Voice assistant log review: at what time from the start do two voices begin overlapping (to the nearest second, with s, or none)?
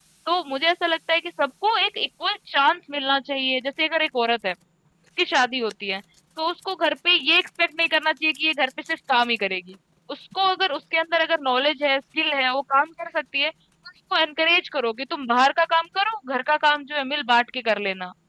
none